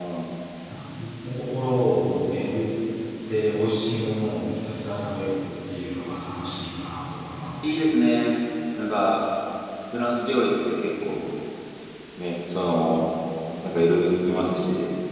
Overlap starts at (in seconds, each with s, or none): none